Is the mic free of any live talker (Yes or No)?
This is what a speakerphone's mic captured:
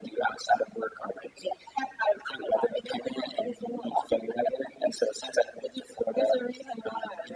Yes